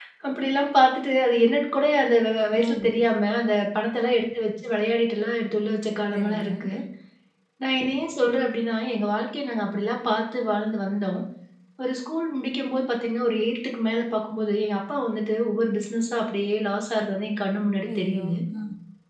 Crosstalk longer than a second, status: none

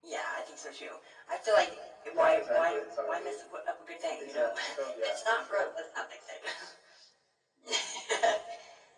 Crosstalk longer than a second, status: present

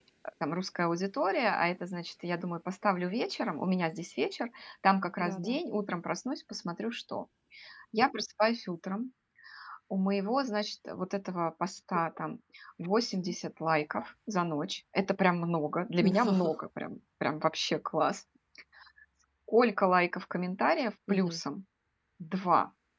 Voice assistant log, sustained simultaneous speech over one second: none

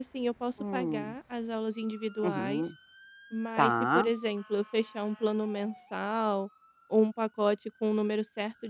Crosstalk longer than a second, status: none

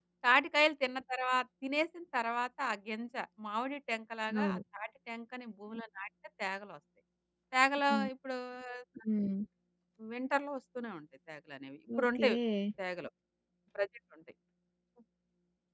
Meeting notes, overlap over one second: none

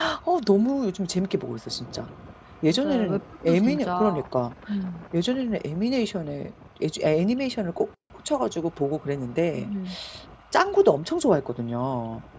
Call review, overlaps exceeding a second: present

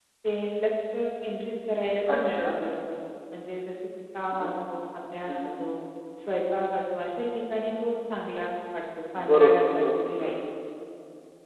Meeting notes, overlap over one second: present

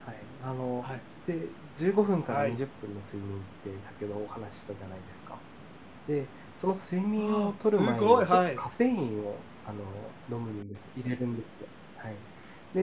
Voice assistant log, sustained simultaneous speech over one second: present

